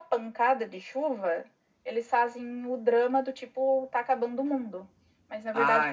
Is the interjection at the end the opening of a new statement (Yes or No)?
No